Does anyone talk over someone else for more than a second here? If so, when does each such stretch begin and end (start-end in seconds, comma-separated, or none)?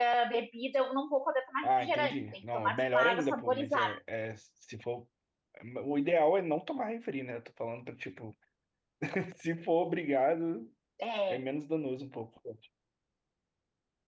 1.6-3.9